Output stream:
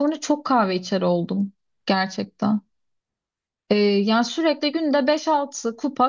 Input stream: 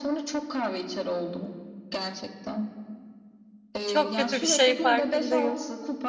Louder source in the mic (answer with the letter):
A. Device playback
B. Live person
B